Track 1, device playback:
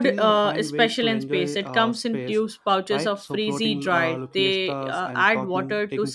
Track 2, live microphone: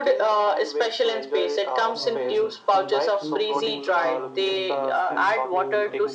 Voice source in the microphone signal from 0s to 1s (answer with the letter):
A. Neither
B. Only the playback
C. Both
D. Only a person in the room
B